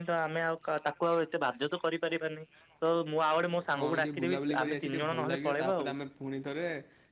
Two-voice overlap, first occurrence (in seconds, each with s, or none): 3.8 s